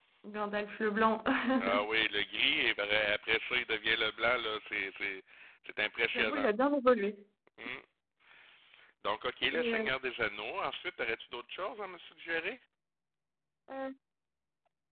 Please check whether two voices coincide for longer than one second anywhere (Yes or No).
No